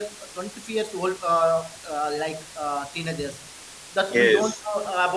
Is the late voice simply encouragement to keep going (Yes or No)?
Yes